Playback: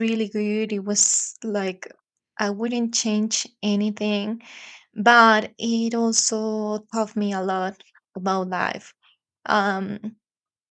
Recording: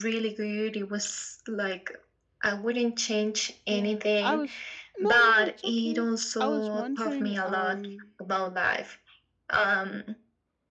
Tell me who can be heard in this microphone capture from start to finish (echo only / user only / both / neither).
both